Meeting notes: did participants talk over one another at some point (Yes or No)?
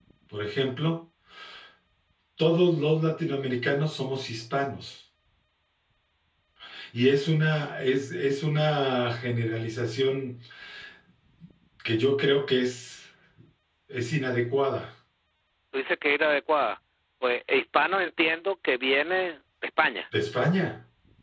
No